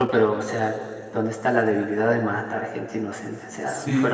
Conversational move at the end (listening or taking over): listening